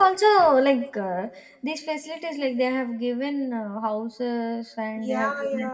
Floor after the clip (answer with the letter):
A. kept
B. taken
B